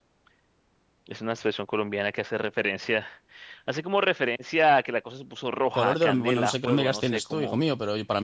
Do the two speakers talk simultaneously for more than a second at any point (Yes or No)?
Yes